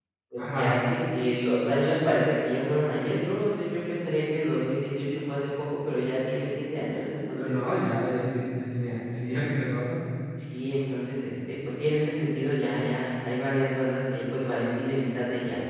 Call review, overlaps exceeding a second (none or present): none